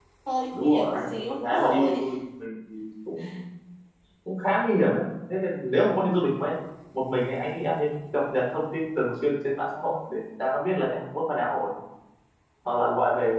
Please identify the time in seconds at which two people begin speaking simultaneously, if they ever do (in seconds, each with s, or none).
0.5 s